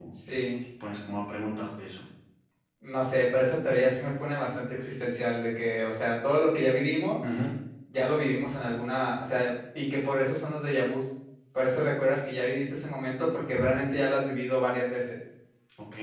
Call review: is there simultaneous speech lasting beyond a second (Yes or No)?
No